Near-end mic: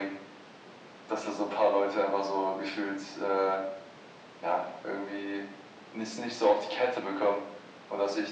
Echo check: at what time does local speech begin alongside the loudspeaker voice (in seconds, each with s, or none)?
none